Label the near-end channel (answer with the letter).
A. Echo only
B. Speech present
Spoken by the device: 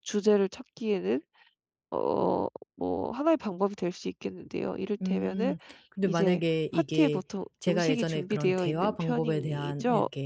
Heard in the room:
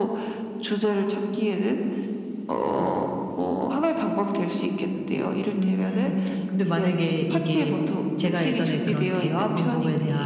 A